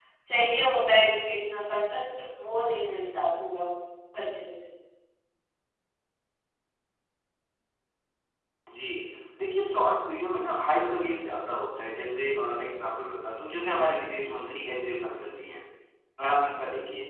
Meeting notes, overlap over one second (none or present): none